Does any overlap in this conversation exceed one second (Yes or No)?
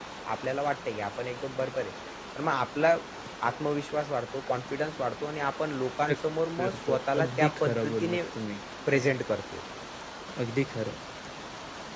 Yes